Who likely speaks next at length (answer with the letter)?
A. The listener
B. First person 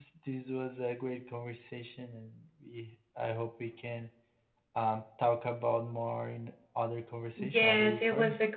A